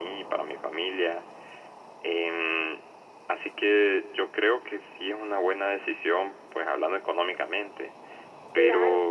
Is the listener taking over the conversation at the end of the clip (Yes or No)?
Yes